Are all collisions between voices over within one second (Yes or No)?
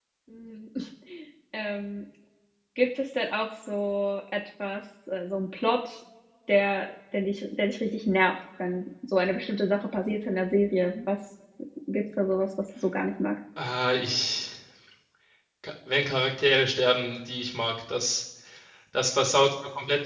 Yes